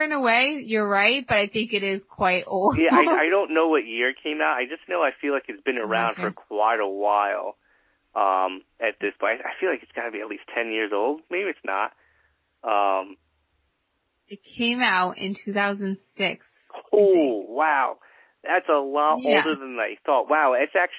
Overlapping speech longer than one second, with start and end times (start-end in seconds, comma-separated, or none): none